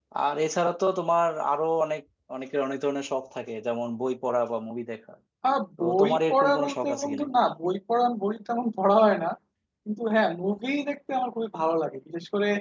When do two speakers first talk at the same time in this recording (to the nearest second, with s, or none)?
6 s